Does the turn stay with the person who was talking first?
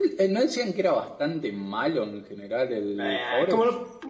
No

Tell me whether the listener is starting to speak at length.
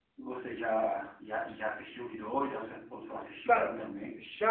Yes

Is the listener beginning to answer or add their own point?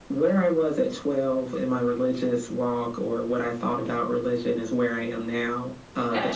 No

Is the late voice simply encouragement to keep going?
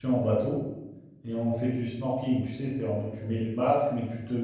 Yes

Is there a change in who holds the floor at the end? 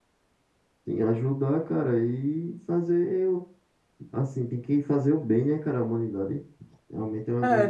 Yes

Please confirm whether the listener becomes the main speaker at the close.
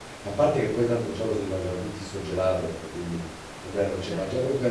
No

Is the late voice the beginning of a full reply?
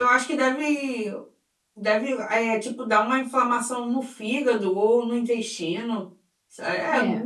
No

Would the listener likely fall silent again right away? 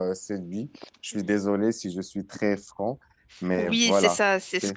No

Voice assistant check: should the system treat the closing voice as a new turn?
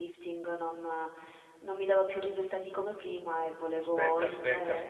Yes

